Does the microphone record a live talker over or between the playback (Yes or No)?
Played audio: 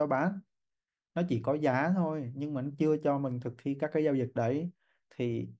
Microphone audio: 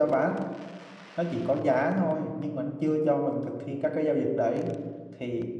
No